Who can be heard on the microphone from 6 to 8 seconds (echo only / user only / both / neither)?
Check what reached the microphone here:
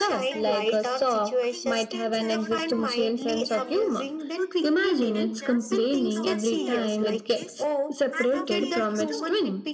both